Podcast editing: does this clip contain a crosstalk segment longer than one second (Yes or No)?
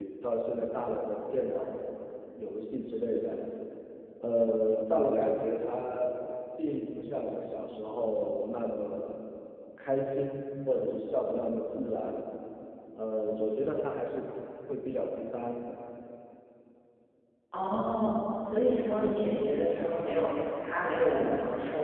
No